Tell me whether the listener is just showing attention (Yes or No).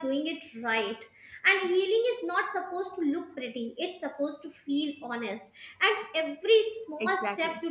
Yes